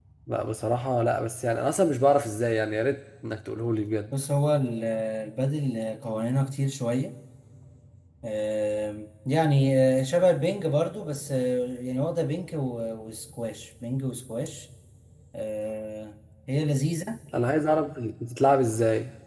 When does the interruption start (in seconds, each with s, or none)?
none